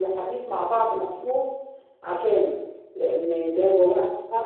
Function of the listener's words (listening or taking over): taking over